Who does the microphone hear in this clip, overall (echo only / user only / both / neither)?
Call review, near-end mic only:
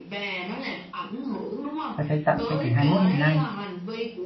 both